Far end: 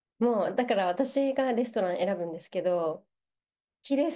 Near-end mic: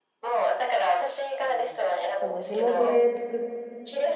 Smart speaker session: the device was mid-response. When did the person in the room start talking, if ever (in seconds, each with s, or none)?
1.4 s